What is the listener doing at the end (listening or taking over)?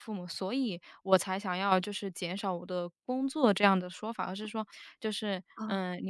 listening